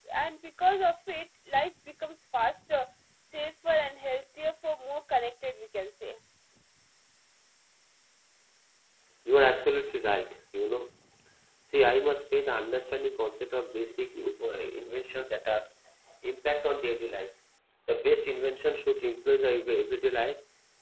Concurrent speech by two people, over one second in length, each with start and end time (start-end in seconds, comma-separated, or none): none